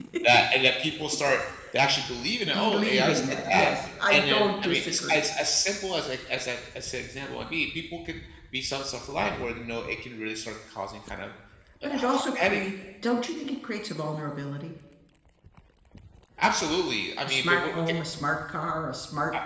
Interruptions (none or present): present